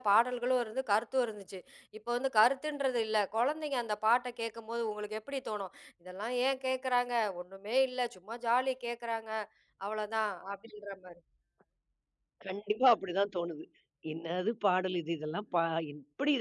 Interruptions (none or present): none